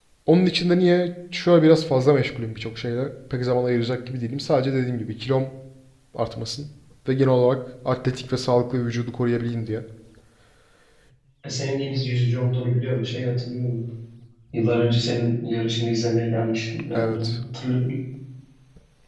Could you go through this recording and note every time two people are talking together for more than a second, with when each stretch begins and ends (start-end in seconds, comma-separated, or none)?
none